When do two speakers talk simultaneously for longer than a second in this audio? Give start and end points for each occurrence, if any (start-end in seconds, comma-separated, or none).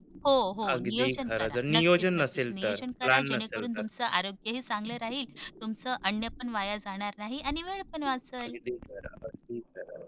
0.7-3.8